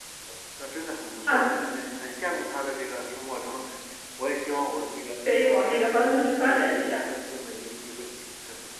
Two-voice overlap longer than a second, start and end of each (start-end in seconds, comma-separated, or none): 5.4-7.1